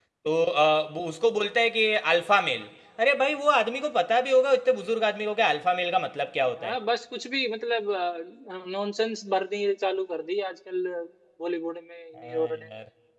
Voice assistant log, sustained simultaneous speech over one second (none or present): none